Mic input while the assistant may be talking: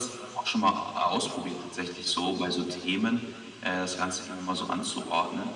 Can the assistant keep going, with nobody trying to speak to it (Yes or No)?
Yes